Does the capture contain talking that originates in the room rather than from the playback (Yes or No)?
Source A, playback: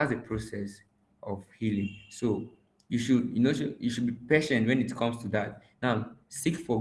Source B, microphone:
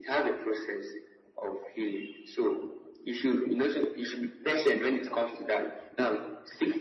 No